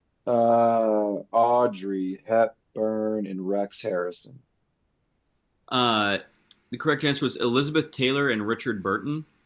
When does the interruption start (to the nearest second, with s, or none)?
none